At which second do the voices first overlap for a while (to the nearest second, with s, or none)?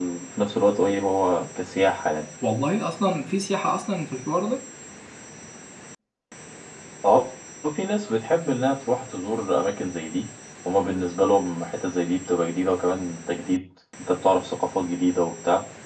none